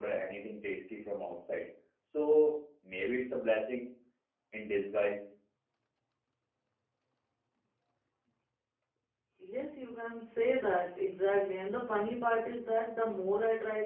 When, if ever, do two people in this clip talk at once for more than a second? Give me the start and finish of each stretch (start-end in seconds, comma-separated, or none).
none